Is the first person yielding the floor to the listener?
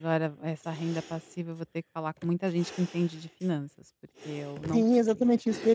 Yes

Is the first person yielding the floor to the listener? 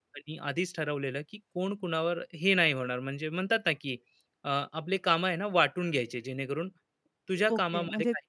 Yes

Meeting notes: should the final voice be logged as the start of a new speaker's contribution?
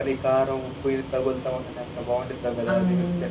Yes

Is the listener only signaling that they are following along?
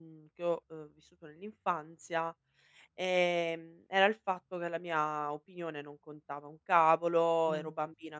Yes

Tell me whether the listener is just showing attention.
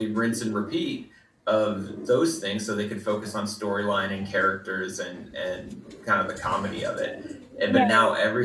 Yes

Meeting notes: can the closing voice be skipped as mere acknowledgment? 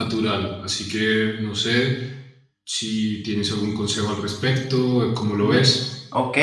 No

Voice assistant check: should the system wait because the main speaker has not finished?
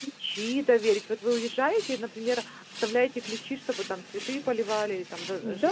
No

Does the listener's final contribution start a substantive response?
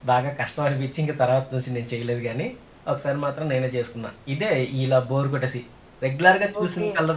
No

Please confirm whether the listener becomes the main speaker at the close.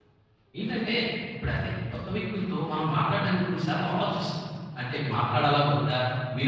No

